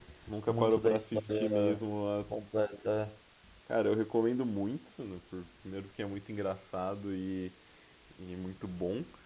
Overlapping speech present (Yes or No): Yes